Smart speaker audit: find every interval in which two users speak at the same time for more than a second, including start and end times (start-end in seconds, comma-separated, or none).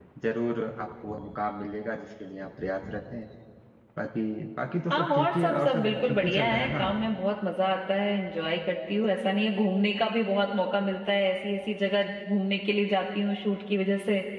4.9-6.8